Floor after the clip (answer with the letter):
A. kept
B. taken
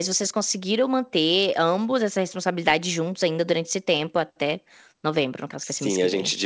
B